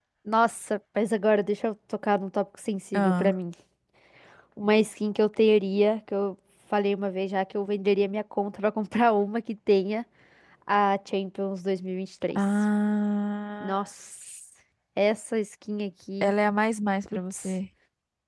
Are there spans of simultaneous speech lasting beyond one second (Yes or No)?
No